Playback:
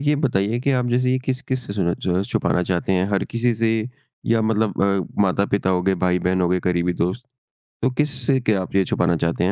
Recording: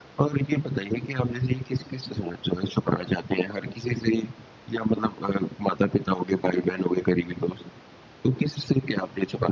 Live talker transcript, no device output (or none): none